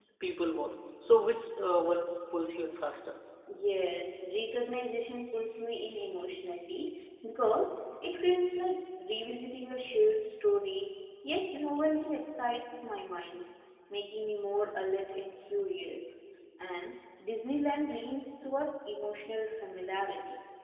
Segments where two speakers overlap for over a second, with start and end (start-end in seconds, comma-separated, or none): none